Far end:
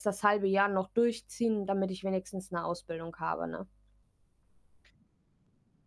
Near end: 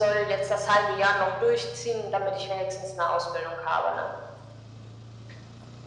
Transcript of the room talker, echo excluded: none

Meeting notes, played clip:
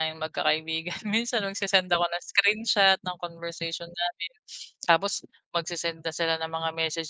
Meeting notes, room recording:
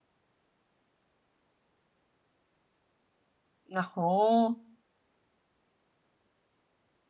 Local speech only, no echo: Naku.

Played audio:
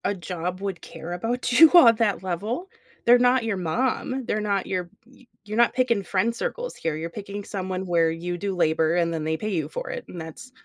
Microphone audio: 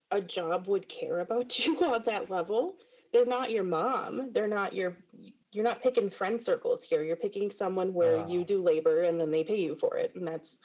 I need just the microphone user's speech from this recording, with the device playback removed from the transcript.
Ugh.

